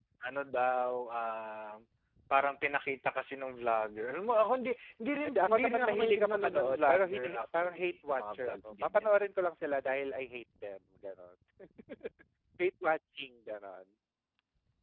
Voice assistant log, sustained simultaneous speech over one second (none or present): present